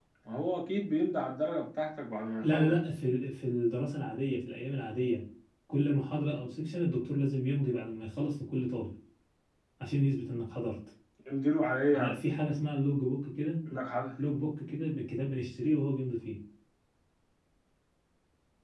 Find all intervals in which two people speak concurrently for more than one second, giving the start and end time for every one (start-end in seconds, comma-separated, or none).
none